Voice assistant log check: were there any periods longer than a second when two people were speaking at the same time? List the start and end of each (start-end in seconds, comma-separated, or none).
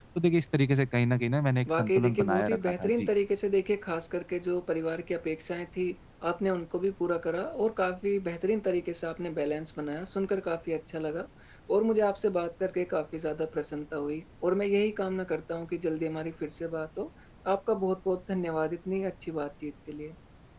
1.7-3.1